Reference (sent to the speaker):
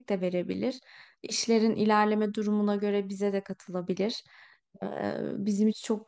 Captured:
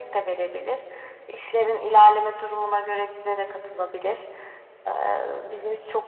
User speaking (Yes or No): No